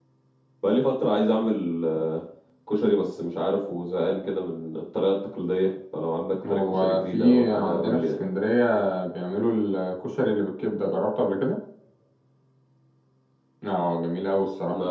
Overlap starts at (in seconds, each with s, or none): 6.4 s